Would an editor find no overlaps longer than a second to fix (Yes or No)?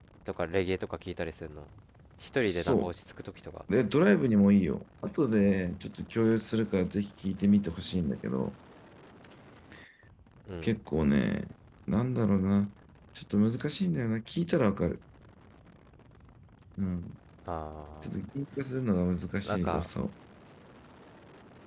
Yes